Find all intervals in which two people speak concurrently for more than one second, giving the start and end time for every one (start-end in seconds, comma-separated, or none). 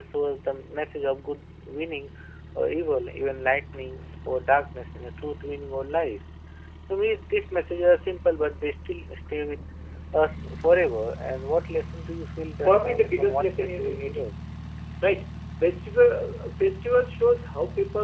12.6-14.2